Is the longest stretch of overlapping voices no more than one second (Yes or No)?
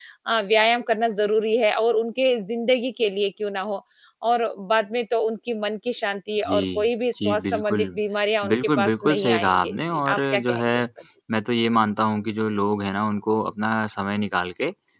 No